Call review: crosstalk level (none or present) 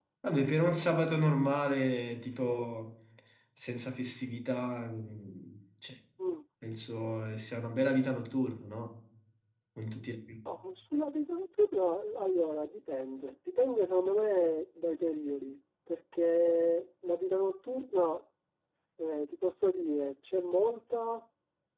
none